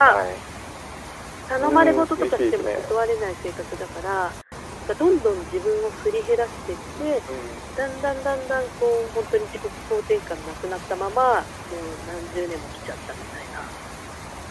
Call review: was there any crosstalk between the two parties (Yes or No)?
Yes